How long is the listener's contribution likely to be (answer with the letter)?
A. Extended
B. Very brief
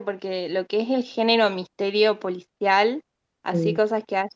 B